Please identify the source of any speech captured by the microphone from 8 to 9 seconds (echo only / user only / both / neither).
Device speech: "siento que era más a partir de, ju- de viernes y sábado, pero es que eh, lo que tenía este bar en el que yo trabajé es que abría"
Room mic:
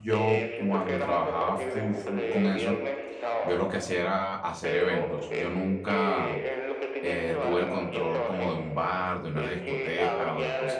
both